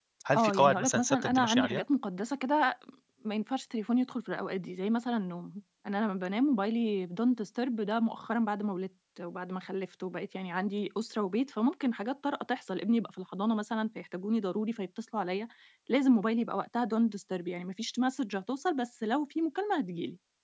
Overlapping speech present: Yes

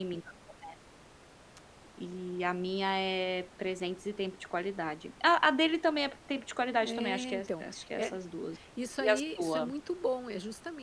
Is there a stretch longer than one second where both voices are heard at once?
Yes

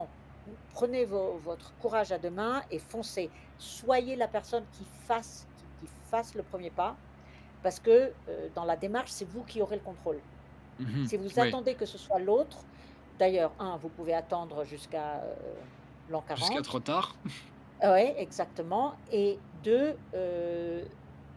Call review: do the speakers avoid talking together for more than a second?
Yes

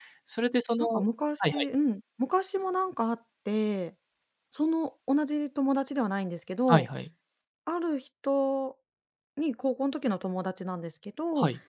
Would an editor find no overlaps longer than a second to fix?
Yes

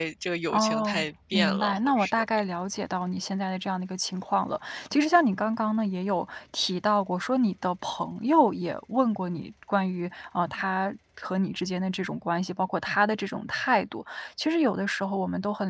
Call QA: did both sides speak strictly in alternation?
No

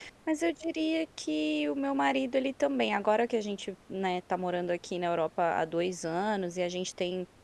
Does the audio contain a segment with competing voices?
No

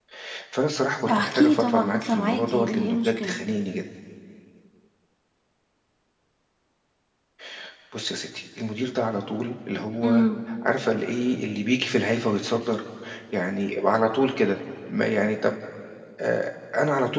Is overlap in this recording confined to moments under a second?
No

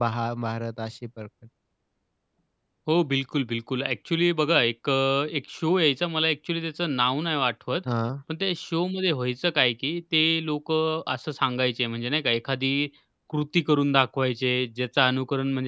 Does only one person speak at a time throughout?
Yes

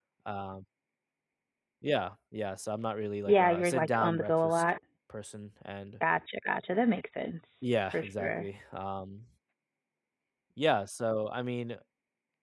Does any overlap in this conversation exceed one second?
Yes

